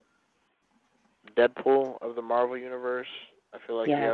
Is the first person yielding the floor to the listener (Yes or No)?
No